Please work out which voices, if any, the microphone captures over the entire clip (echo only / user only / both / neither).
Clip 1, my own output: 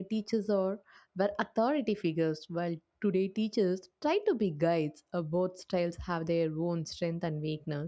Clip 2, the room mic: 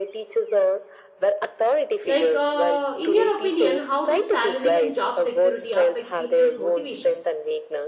both